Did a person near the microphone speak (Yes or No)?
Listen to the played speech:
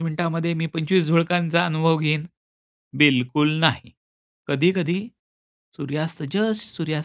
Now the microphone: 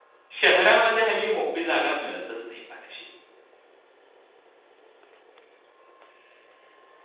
Yes